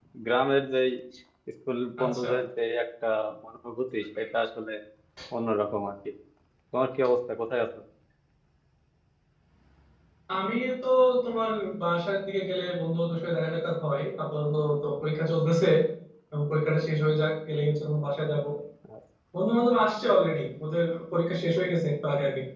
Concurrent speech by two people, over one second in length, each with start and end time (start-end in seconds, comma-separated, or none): none